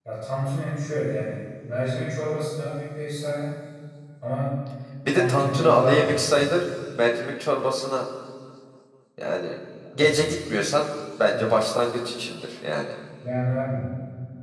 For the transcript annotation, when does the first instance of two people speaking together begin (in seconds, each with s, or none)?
5.1 s